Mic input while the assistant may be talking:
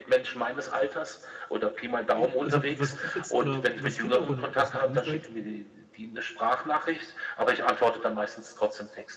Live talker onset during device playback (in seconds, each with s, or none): 2.2 s